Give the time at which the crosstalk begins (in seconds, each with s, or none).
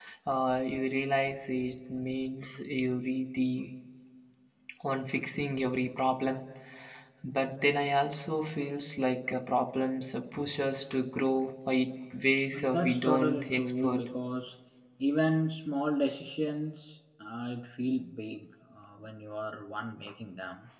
12.5 s